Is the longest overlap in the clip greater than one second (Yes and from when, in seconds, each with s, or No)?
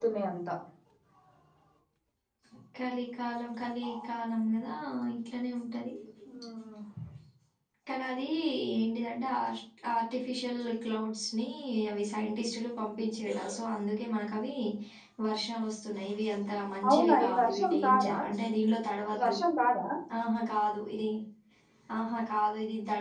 Yes, from 16.9 s